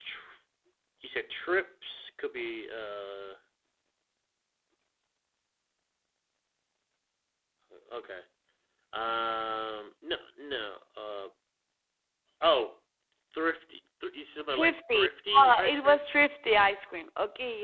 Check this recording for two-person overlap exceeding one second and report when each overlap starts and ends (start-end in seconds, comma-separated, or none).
14.5-16.0